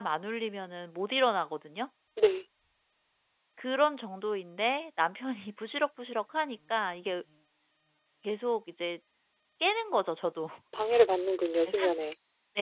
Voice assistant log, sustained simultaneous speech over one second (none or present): none